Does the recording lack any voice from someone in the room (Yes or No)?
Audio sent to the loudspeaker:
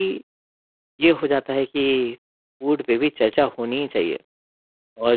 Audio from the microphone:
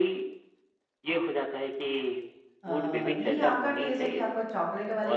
No